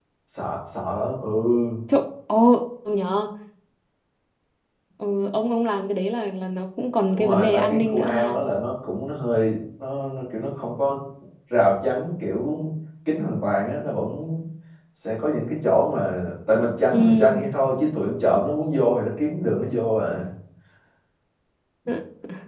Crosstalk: present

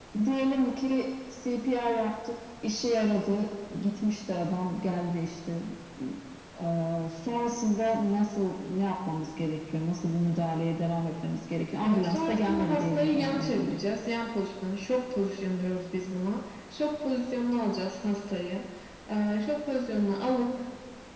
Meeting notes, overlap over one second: present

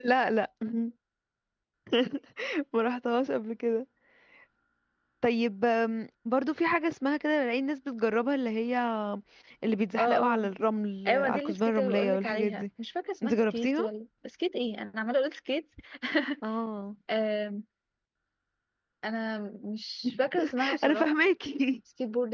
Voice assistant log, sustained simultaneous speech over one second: present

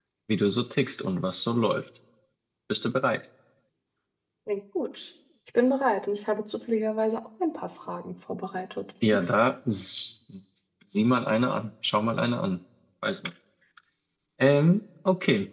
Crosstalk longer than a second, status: none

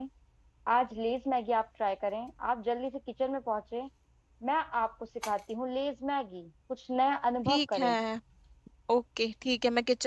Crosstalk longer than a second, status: none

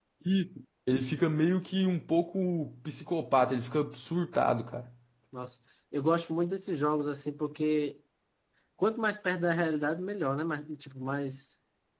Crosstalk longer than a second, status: none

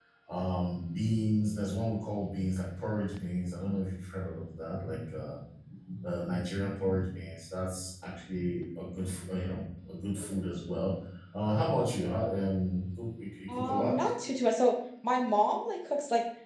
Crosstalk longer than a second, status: none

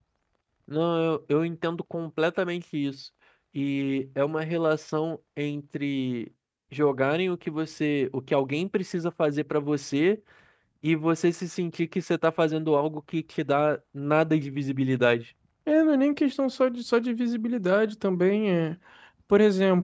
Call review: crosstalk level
none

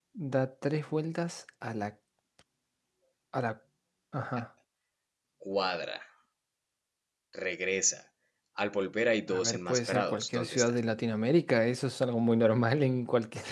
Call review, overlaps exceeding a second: present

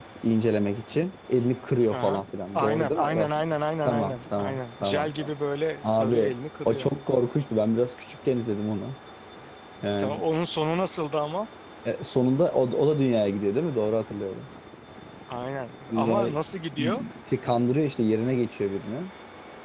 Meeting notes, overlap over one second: present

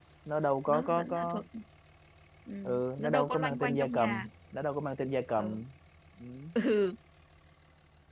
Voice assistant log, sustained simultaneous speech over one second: present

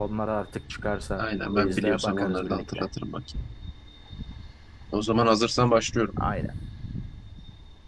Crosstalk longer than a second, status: present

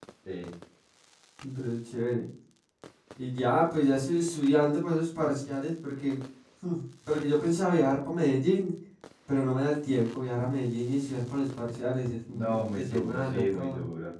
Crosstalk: present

